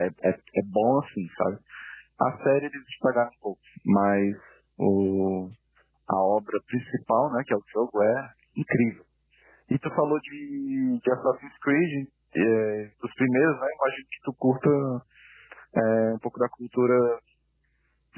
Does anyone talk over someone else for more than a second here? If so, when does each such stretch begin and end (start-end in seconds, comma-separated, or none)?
none